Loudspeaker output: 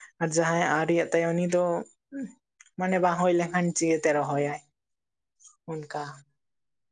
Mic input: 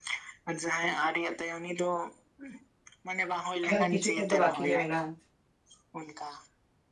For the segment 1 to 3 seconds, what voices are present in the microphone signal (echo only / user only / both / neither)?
echo only